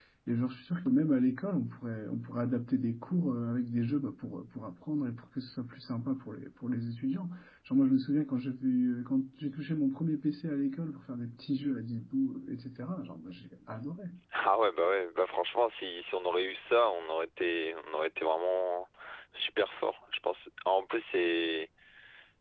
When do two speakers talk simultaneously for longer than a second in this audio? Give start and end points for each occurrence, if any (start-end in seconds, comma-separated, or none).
none